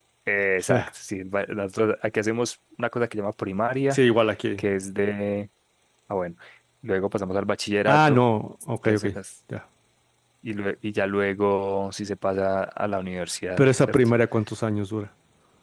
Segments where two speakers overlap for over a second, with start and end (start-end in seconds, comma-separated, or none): none